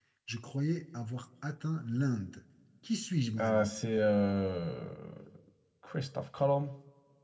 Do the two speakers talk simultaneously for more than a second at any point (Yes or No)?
No